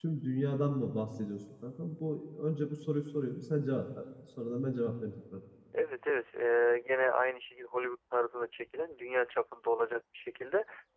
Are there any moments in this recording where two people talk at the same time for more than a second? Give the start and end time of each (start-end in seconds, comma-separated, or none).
none